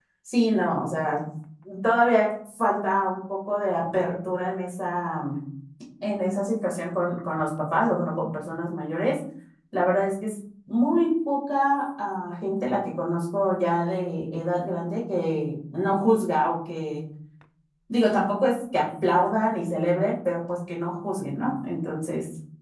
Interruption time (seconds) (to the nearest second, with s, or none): none